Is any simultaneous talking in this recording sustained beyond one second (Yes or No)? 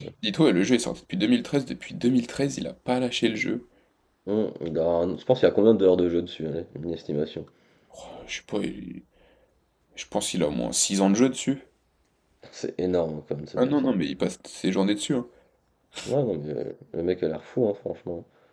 No